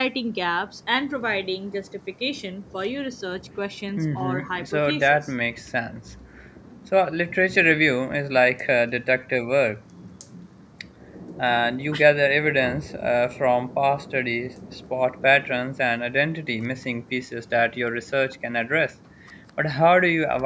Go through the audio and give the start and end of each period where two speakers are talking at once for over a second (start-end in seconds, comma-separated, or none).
3.9-5.2